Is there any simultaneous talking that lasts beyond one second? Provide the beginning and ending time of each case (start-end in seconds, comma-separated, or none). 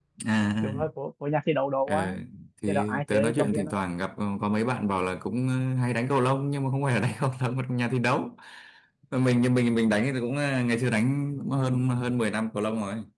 2.7-3.9